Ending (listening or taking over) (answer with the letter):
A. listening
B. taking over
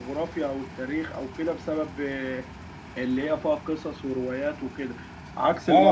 B